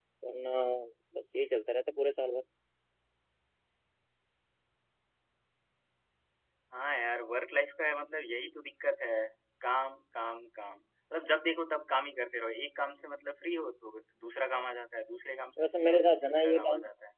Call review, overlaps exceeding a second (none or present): present